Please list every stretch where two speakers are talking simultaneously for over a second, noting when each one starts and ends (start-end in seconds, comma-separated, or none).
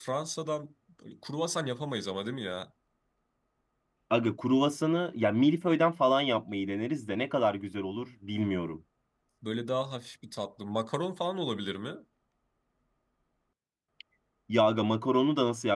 none